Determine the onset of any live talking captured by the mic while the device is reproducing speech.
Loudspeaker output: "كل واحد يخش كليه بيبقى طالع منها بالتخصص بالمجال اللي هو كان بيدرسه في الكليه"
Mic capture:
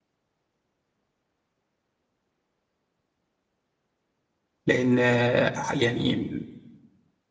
4.7 s

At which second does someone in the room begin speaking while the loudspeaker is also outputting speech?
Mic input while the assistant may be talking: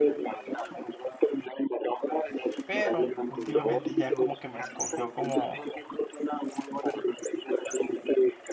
2.6 s

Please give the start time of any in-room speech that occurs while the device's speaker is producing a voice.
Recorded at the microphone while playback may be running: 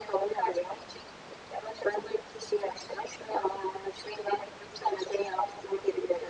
none

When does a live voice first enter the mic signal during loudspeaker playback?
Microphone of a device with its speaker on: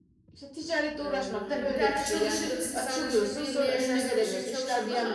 1.0 s

